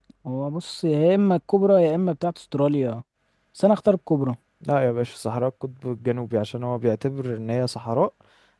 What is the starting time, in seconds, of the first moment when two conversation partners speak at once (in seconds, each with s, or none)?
none